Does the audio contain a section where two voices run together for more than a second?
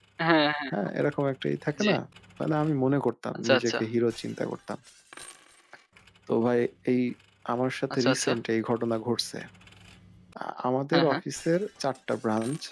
No

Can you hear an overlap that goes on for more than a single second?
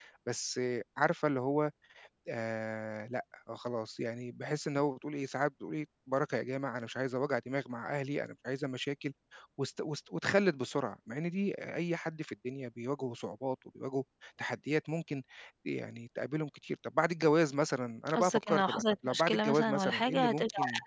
Yes, from 18.1 s

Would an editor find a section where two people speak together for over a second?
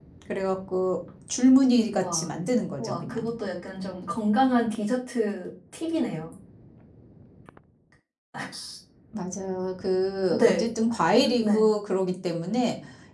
No

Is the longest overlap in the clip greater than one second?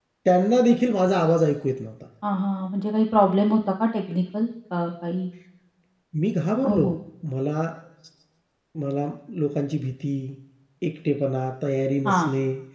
No

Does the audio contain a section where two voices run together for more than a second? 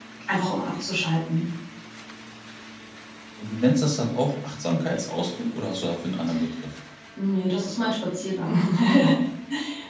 No

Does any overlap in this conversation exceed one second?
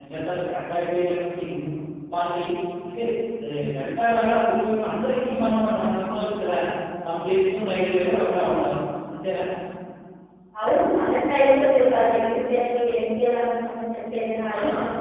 No

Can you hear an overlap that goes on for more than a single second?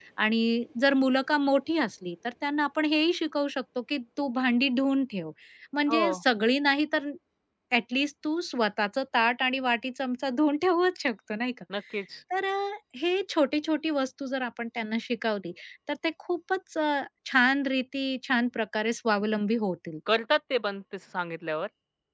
No

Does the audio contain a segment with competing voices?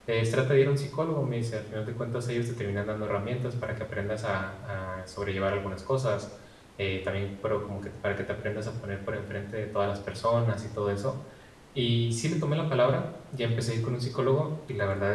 No

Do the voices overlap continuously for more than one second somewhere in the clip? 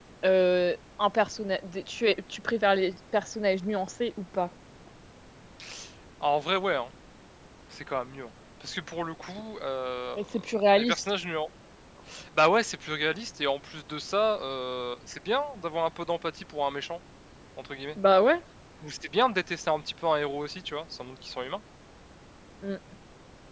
No

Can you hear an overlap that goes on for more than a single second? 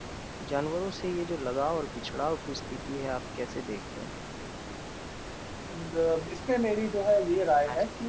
No

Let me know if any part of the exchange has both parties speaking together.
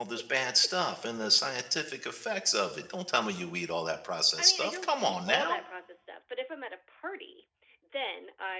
Yes, from 4.4 s

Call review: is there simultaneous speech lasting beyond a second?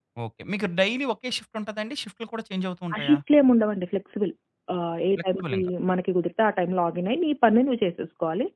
No

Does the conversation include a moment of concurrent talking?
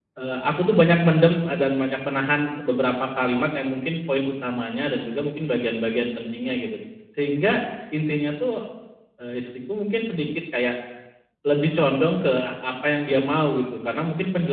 No

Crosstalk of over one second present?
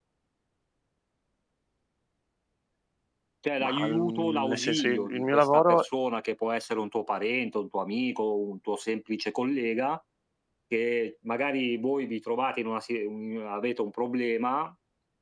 Yes, from 3.6 s

